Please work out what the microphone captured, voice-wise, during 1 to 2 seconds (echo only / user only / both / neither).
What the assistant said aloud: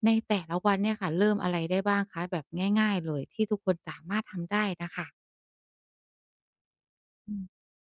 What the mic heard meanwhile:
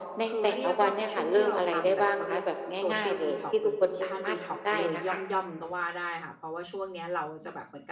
both